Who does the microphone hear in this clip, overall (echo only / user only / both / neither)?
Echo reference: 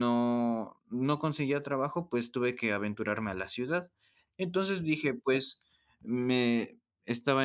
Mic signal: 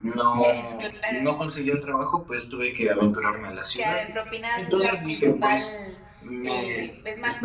both